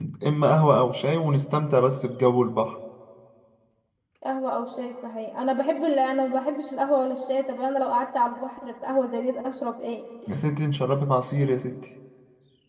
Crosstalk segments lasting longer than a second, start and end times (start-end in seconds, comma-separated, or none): none